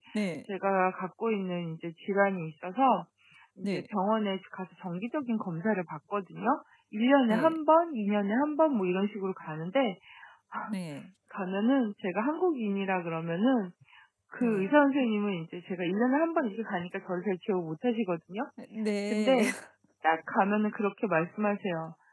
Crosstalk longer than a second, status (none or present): none